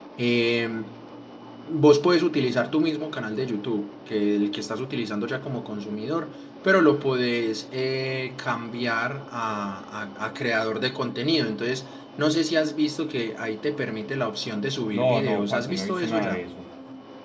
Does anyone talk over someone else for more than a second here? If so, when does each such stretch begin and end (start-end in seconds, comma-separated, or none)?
14.9-16.4